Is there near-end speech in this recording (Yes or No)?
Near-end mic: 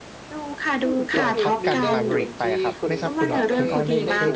Yes